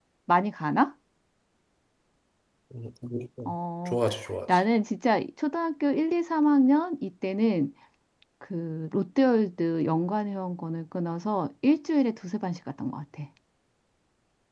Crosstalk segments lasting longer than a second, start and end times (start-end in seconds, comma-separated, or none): none